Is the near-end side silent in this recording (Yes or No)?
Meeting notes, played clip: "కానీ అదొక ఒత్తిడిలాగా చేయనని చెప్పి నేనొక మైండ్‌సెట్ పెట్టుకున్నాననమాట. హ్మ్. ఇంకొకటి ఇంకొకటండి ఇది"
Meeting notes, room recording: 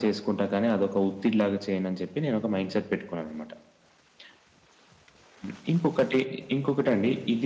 Yes